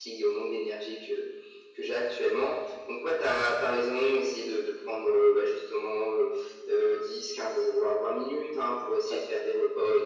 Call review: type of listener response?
listening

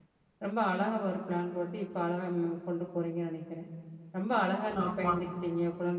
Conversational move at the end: listening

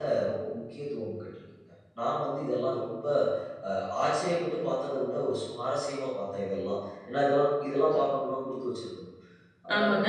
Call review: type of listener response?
taking over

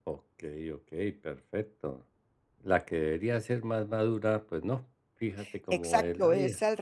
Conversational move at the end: taking over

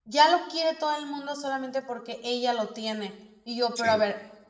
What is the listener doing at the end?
listening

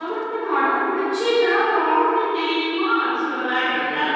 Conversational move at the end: listening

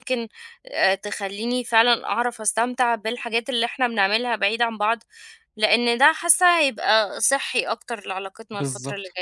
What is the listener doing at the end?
taking over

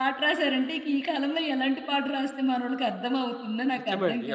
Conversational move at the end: taking over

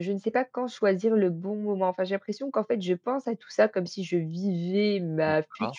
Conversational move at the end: listening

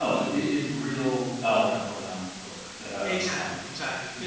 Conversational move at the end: taking over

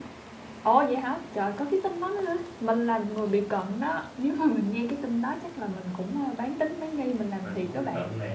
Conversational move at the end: taking over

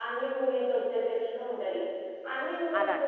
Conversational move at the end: listening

